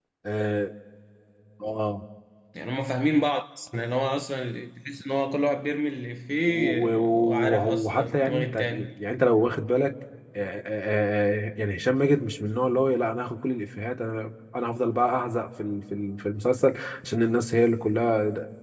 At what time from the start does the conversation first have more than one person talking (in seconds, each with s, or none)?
6.4 s